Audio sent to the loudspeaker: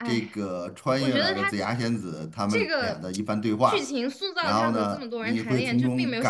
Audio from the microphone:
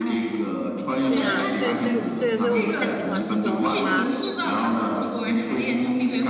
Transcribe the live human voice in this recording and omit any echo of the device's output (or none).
对呀，对，所以对，所以我不太喜欢这种给他，